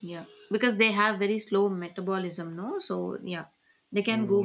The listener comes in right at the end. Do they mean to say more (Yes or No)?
Yes